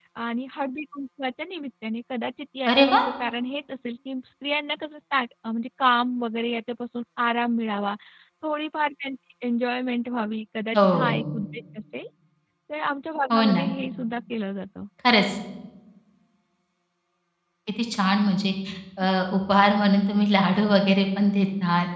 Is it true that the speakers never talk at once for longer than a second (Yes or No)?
Yes